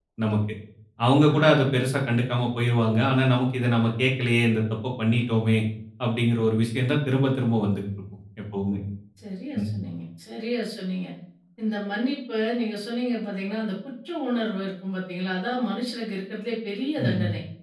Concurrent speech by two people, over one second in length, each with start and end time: none

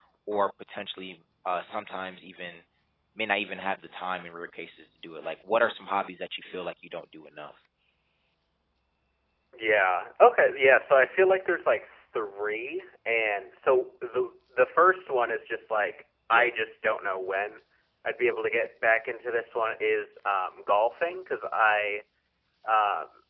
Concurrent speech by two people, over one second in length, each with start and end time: none

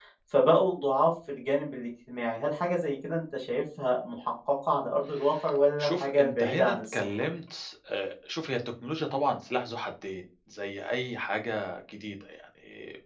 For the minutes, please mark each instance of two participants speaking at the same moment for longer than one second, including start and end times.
5.8-7.0

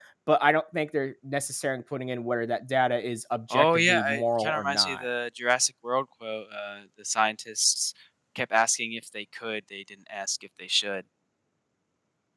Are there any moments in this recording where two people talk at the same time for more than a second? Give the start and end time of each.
3.5-5.1

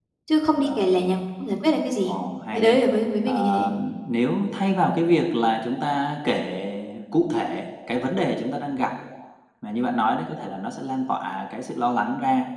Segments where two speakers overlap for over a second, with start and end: none

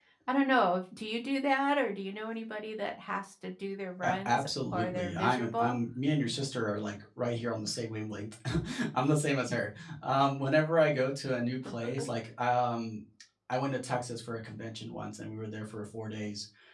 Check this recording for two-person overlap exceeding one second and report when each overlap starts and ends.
4.0-5.8

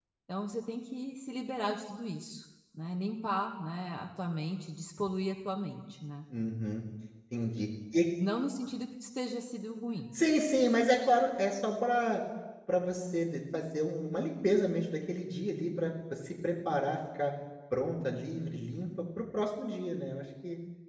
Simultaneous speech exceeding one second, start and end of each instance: none

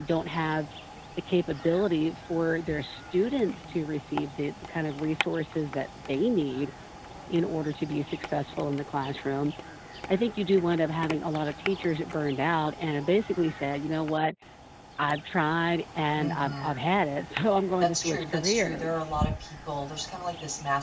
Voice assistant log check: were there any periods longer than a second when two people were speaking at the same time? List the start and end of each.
17.8-19.1

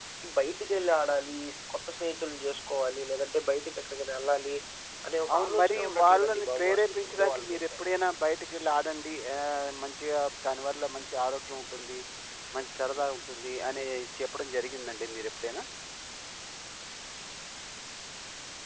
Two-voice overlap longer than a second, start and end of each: 5.3-7.7

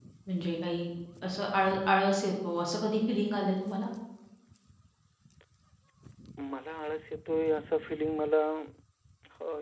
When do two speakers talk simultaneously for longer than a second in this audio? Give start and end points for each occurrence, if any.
none

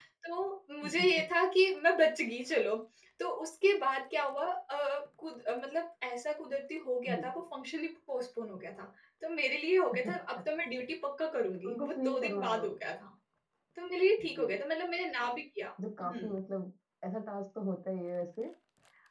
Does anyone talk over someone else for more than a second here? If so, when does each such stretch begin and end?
11.7-13.0

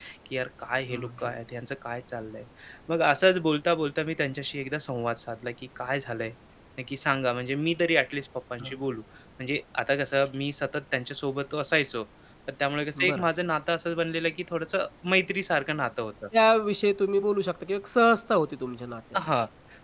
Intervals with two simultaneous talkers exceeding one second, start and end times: none

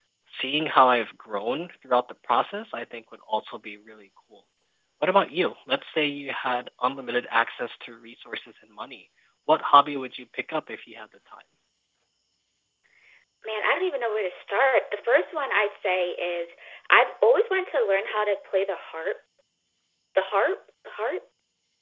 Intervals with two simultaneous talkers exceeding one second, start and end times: none

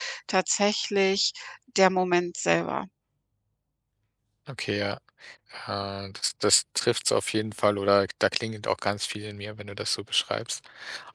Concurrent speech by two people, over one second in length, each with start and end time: none

